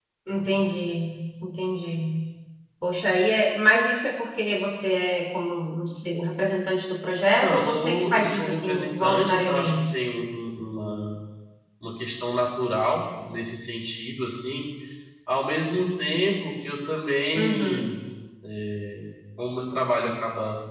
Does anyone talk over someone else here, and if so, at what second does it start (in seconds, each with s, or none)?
7.4 s